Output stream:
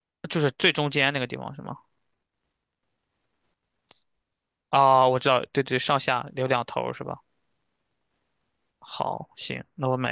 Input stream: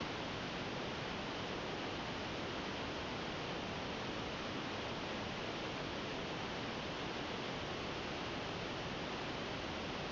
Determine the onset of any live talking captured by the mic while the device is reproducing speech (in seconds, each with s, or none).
none